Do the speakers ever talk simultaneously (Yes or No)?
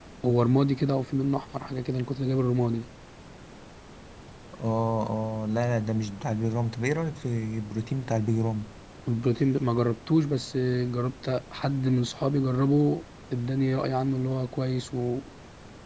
No